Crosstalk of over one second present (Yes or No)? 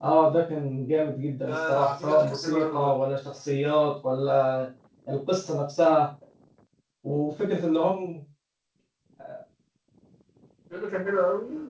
Yes